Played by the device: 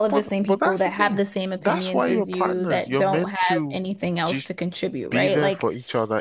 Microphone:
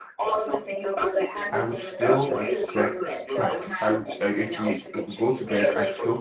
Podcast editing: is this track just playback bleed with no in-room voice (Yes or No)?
No